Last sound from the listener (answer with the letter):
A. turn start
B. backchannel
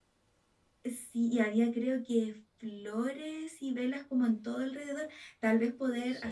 B